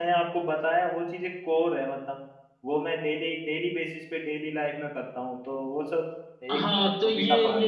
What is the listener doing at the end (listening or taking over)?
taking over